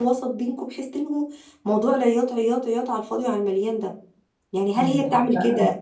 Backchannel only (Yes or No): Yes